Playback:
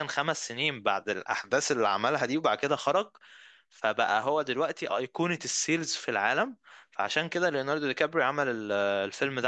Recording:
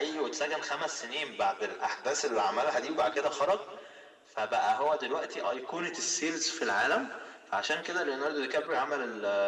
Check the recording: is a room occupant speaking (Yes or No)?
No